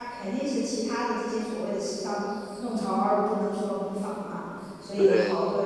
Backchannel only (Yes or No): Yes